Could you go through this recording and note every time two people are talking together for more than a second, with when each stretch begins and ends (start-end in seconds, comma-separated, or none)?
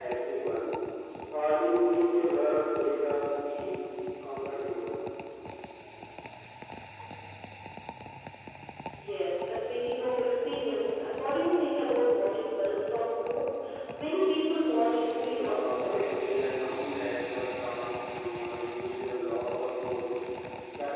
15.2-16.8